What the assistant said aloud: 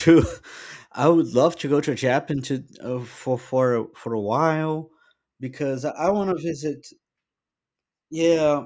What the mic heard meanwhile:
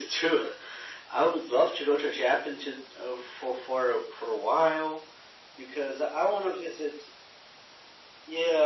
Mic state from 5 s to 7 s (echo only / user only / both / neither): echo only